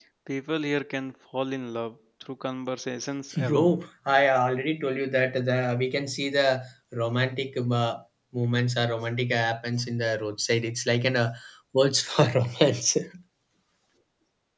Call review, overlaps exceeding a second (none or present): none